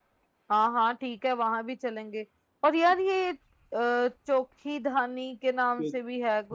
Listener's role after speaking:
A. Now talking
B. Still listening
A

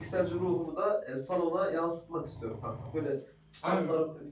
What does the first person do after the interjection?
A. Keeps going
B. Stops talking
A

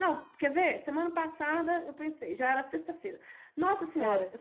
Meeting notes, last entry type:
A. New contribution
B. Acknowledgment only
B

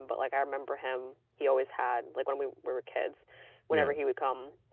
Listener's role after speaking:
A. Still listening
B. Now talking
A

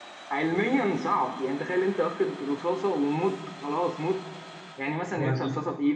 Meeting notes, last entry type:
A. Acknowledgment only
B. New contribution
A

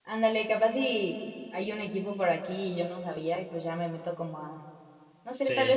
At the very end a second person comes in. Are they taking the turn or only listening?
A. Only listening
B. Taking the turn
A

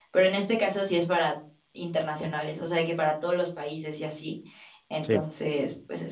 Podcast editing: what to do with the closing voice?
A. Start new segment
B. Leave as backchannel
B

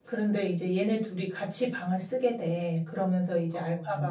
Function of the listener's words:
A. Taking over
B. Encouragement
B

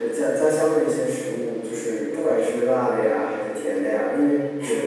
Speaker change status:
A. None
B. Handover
A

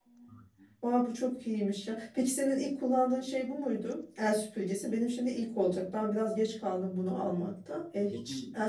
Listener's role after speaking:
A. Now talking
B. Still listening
B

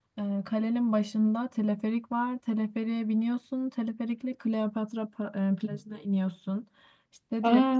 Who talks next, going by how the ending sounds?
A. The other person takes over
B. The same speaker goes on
B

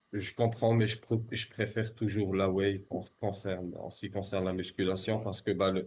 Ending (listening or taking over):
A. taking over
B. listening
B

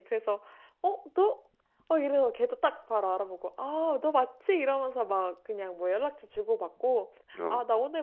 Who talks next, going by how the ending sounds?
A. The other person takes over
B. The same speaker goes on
B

